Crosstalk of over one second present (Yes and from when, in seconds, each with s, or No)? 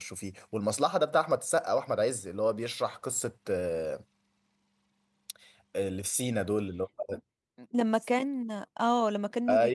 No